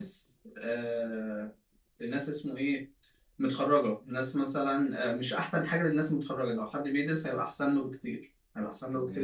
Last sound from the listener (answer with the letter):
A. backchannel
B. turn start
B